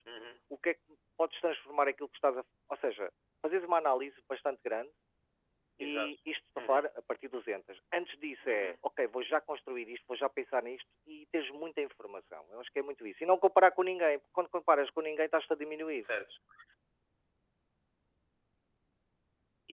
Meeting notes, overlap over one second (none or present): none